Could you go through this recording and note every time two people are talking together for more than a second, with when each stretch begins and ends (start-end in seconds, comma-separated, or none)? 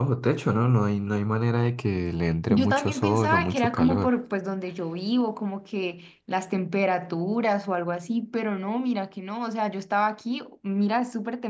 2.5-4.1